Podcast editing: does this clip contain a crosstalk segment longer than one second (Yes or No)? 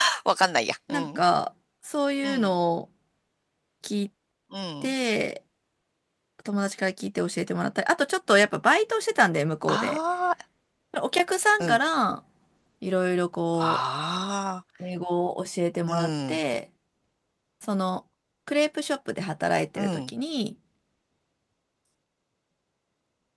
No